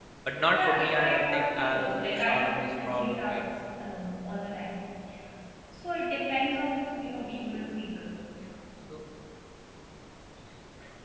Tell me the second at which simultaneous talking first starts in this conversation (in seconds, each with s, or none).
0.5 s